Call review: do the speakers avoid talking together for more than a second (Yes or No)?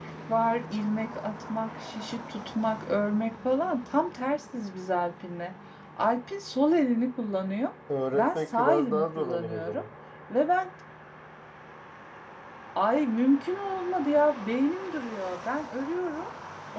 No